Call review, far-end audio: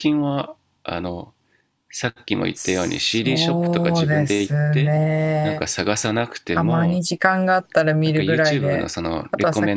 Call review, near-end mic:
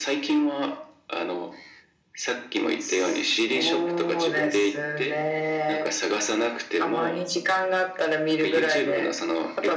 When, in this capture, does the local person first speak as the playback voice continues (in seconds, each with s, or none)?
none